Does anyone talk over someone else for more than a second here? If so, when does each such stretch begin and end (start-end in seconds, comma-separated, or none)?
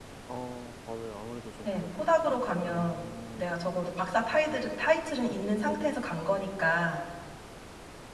1.6-3.6